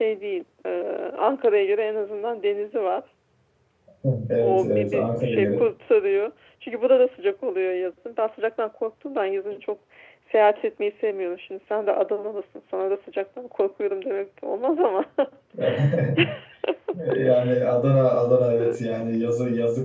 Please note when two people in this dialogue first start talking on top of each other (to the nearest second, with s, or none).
4 s